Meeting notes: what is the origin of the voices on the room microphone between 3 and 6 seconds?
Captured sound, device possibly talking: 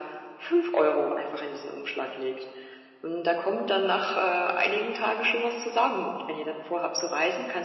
echo only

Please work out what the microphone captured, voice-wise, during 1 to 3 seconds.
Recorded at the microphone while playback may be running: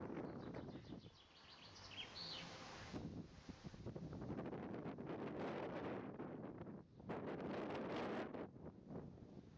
neither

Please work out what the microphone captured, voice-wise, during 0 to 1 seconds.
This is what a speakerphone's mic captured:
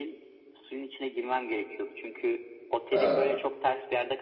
echo only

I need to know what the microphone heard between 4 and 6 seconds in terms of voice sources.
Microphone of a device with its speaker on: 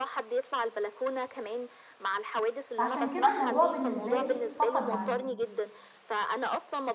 both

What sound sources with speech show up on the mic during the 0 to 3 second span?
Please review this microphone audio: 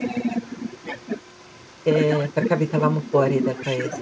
both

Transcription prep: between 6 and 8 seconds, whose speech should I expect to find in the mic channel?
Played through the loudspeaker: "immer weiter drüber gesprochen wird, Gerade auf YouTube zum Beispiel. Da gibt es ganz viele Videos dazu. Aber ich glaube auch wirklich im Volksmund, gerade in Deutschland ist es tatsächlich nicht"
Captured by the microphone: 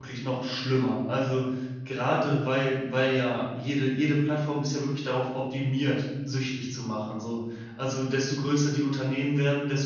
user only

